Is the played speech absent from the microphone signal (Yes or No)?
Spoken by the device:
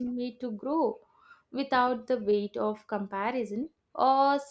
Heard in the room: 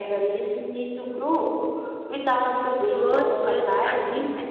No